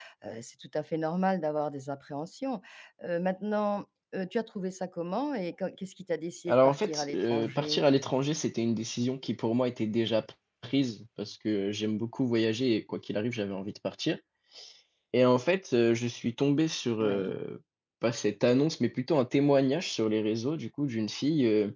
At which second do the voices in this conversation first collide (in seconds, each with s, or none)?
6.5 s